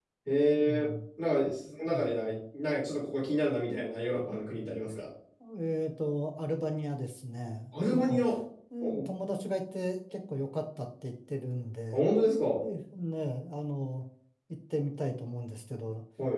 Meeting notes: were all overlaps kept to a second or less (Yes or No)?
Yes